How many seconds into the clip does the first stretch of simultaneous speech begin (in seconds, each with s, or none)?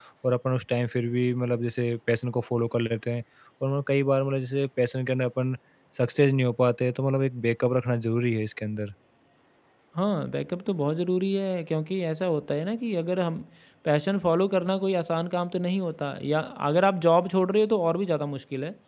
none